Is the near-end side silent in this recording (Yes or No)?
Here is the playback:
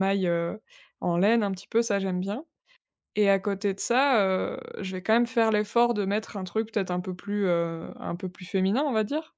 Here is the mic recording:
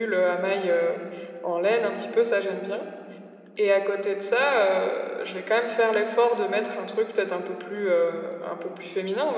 Yes